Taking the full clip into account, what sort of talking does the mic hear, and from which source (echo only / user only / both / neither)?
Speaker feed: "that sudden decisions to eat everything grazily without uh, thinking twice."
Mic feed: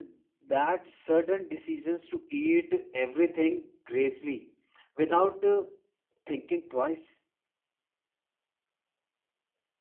echo only